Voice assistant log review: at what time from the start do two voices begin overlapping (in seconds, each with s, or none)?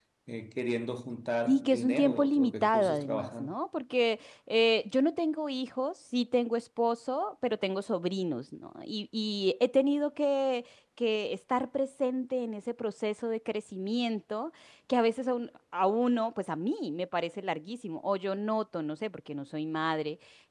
1.5 s